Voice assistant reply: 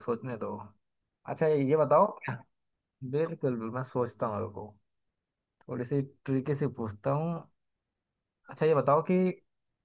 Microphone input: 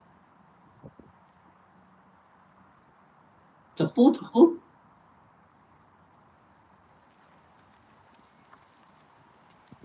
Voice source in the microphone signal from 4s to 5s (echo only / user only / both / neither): user only